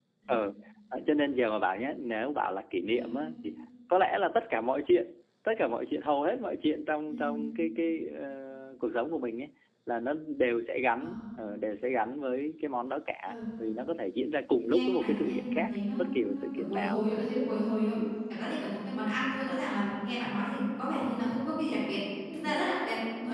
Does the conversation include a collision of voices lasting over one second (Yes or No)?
Yes